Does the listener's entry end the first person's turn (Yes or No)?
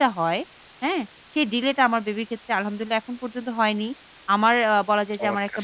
No